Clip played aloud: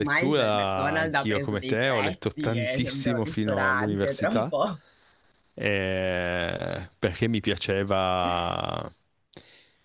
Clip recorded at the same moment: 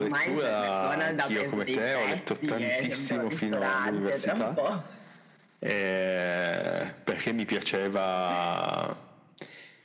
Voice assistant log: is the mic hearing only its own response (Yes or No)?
Yes